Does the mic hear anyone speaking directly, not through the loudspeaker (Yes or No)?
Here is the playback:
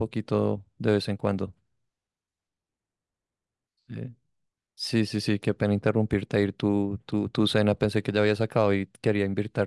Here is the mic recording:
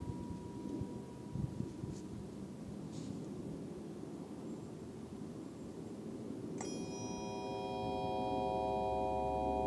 No